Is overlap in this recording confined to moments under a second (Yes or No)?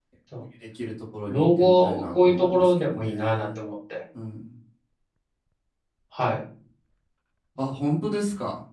No